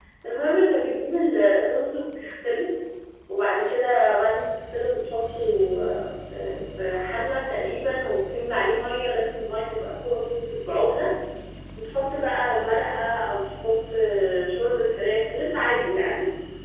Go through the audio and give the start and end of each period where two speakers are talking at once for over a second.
none

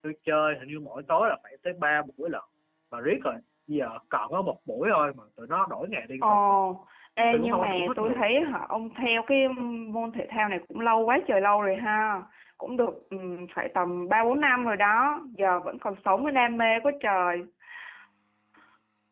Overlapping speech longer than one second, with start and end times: 7.2-8.4

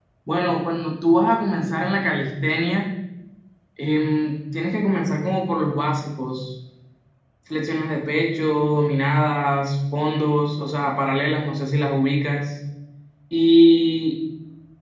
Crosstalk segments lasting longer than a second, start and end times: none

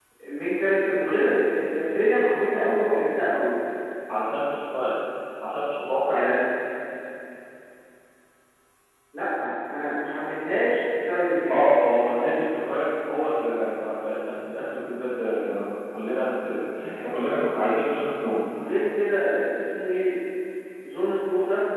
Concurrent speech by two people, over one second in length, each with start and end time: none

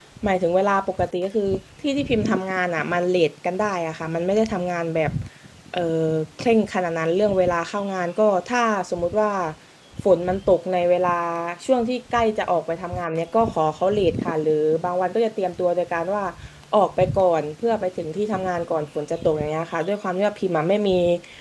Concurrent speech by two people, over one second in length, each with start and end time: none

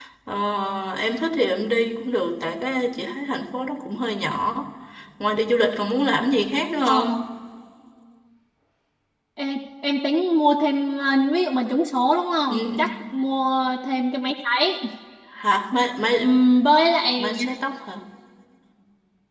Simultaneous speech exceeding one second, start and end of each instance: none

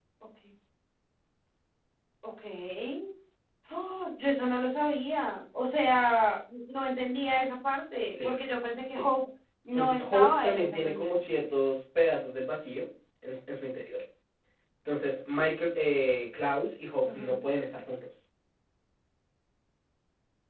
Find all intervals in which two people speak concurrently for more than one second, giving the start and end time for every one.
9.7-11.2

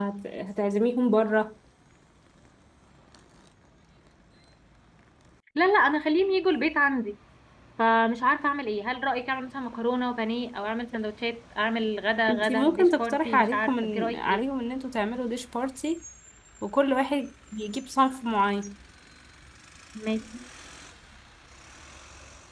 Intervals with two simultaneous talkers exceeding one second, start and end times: 12.3-14.4

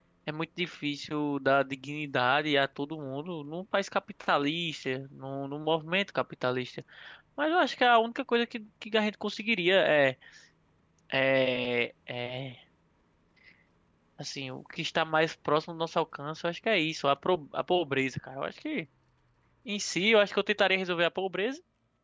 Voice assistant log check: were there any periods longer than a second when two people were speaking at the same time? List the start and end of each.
none

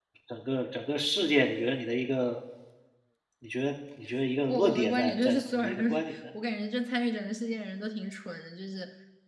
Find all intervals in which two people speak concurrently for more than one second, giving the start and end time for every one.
4.5-6.2

